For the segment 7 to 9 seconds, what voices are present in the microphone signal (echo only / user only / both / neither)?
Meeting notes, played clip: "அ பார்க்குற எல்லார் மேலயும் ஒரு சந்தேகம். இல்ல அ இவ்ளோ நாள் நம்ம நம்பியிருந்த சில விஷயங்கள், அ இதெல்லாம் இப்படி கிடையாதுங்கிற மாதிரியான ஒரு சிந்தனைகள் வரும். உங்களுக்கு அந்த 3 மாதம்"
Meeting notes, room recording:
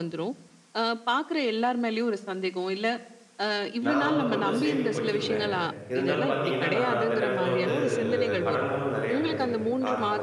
both